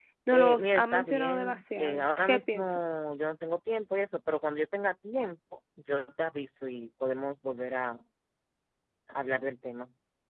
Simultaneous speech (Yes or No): Yes